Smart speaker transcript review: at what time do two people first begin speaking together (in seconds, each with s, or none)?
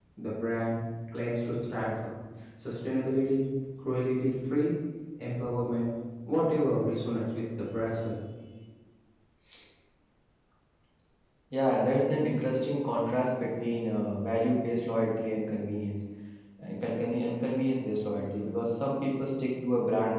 none